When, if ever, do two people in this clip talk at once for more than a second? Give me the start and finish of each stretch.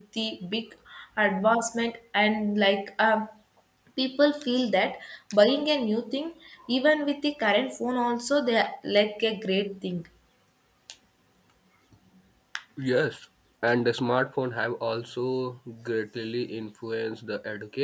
none

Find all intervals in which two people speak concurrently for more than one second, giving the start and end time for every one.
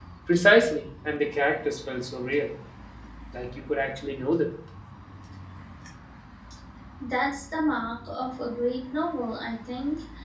none

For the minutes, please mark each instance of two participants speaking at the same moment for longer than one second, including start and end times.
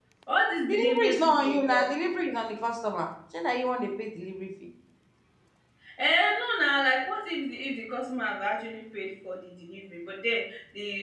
0.6-1.9

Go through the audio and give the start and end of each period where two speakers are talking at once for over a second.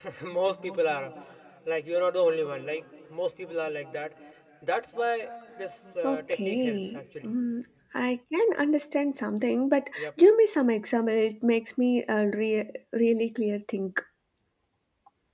6.0-7.3

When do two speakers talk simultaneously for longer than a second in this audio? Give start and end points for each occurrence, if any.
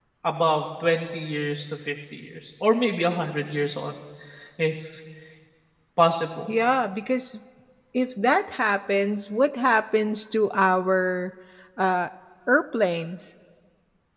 none

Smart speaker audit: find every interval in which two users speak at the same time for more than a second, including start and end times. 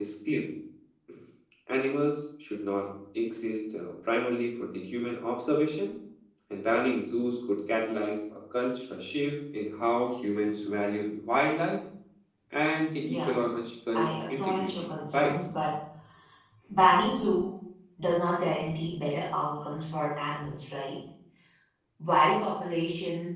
13.9-15.4

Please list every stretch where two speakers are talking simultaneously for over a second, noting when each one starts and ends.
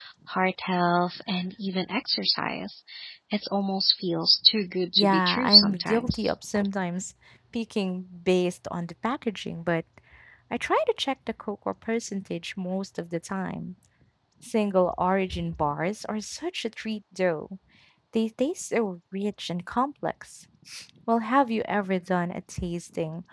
5.0-6.3

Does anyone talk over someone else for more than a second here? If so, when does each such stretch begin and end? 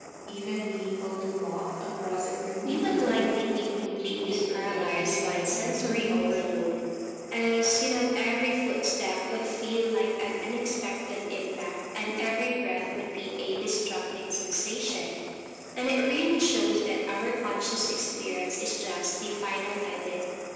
2.6-6.4

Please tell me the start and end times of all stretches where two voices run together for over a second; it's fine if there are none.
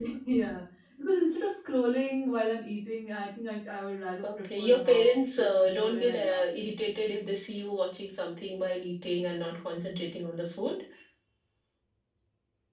4.2-6.4

